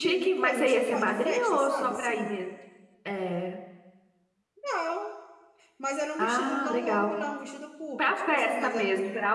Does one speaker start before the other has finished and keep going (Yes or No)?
Yes